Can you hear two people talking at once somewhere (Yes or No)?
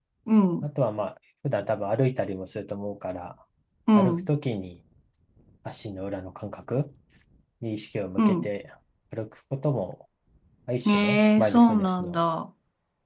Yes